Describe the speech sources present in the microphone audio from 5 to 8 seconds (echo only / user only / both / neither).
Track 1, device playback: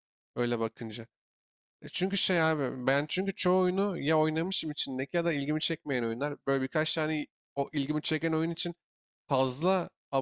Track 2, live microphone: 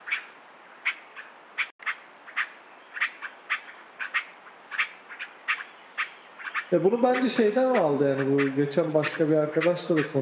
user only